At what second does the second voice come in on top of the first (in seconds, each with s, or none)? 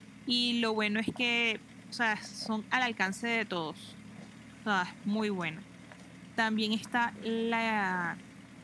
none